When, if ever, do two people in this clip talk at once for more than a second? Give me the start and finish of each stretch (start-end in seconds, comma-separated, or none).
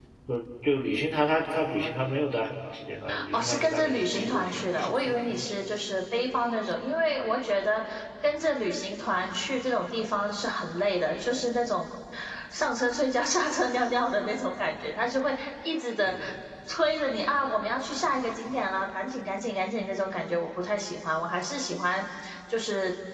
3.3-5.6